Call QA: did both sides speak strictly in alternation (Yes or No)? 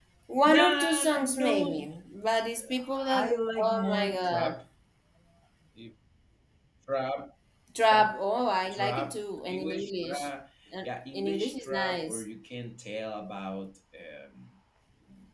No